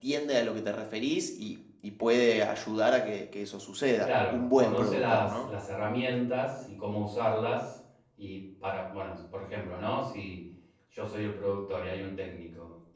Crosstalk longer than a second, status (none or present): present